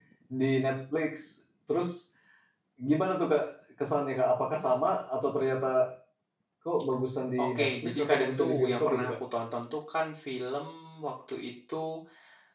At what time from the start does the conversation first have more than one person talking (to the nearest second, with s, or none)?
7 s